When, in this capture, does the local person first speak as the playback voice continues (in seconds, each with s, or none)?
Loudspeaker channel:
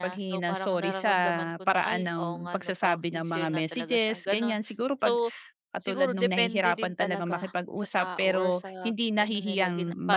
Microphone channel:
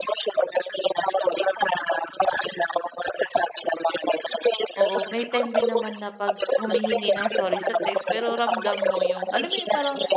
4.8 s